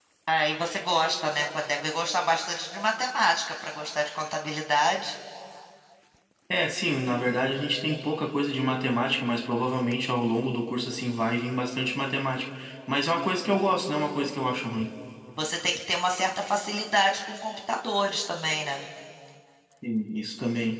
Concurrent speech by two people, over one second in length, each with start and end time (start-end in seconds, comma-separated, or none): none